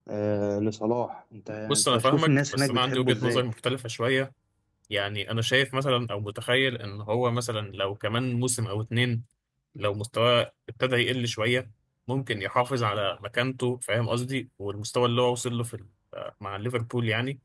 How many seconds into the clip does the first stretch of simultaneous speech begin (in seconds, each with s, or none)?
1.7 s